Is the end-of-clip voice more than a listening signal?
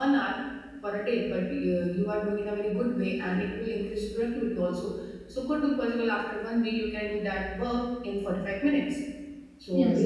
No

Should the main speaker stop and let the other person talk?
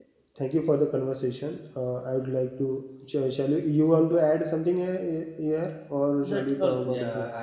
Yes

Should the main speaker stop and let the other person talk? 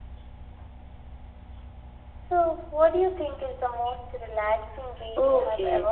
Yes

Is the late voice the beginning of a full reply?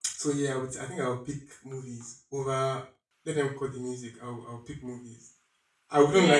Yes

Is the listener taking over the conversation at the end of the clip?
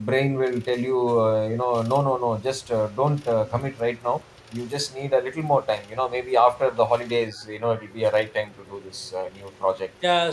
Yes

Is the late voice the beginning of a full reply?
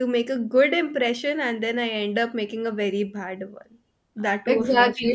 Yes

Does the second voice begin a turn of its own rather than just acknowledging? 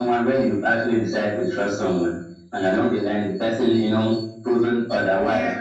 No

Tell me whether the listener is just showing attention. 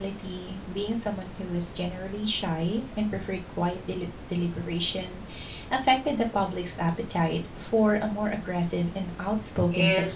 No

